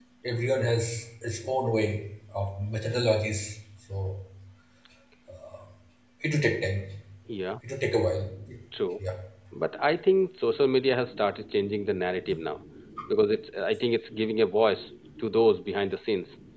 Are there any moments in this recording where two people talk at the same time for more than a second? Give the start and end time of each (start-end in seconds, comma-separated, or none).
none